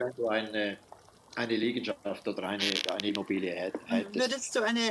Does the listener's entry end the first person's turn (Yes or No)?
Yes